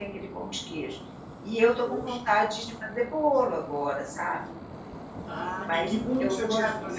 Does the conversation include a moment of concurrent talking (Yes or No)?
Yes